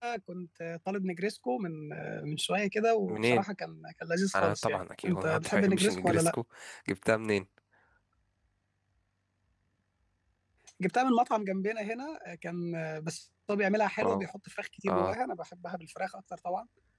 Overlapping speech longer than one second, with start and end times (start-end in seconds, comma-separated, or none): 4.3-6.3